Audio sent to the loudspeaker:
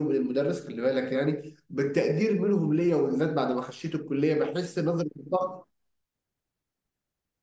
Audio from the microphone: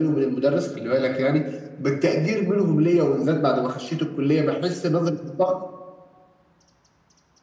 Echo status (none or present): present